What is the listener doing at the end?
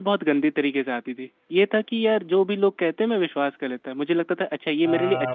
taking over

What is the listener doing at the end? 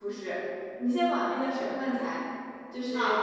listening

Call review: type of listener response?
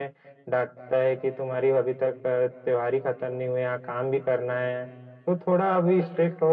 listening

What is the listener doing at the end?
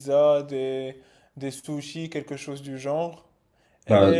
taking over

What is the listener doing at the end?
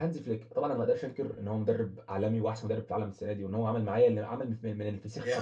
taking over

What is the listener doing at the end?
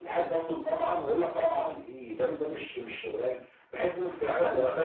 taking over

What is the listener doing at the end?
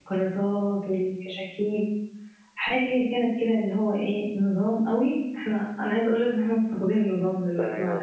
taking over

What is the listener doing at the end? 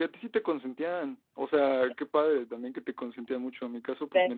listening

